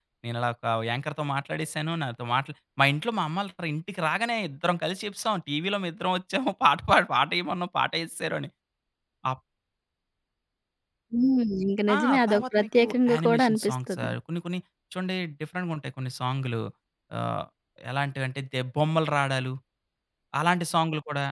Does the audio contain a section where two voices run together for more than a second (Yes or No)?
Yes